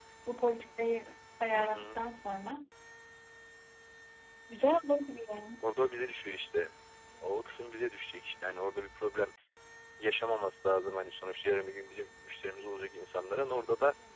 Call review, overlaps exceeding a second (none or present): none